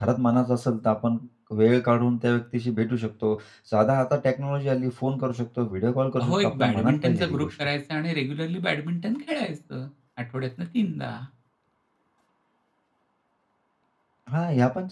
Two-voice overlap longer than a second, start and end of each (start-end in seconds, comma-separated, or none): 6.2-7.5